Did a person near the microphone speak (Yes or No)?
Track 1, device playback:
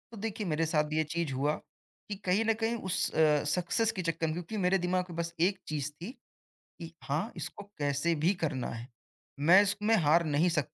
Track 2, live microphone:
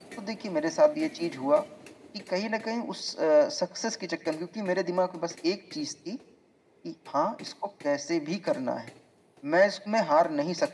No